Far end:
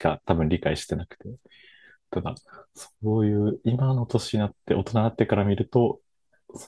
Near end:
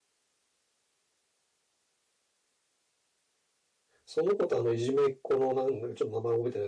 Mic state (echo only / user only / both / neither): user only